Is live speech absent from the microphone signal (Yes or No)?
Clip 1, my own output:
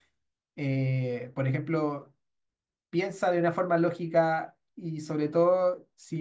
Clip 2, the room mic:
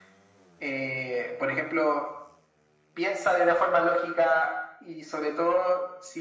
Yes